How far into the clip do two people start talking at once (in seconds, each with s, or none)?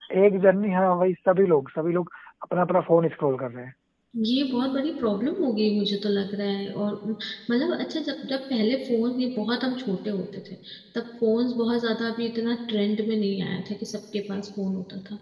none